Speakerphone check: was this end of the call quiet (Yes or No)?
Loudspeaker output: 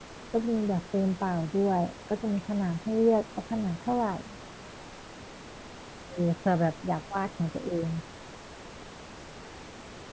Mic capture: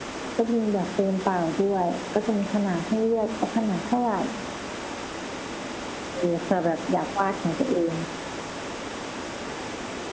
Yes